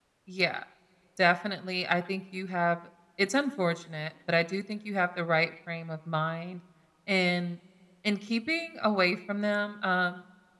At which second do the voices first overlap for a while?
none

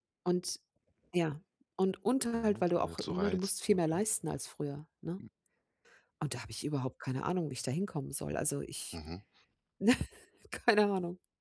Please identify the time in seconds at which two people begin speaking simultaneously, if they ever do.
2.3 s

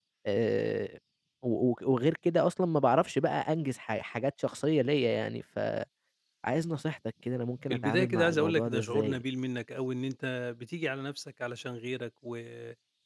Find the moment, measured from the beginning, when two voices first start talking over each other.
7.7 s

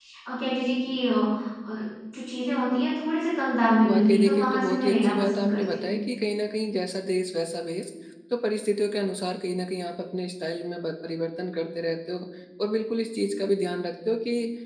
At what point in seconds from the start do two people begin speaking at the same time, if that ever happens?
3.8 s

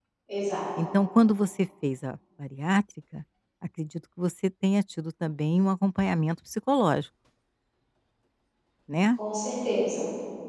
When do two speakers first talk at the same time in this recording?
none

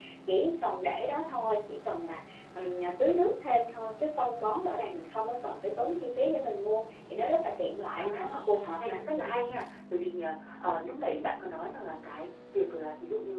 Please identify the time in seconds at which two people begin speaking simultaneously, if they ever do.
8.0 s

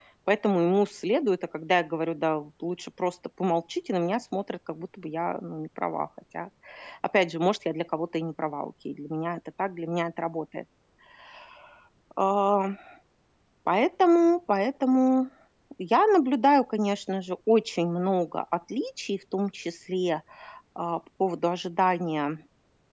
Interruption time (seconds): none

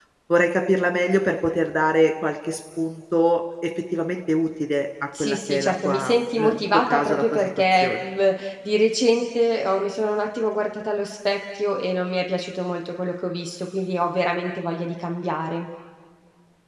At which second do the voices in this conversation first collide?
5.1 s

